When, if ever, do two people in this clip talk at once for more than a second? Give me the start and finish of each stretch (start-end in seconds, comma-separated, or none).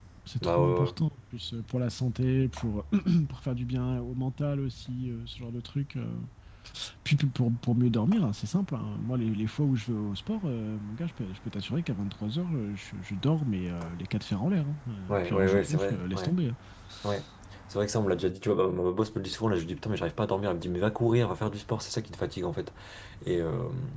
15.1-16.3